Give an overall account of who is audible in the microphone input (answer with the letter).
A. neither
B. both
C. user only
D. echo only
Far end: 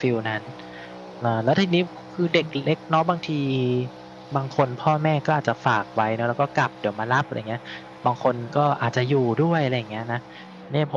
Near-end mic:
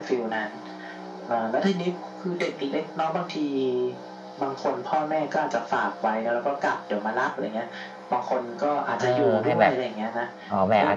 B